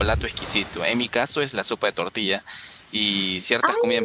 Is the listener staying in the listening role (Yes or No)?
Yes